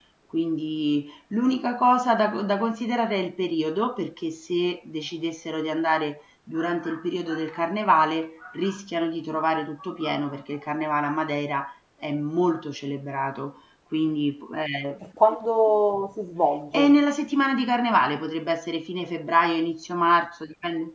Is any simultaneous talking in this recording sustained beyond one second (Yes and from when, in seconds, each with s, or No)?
No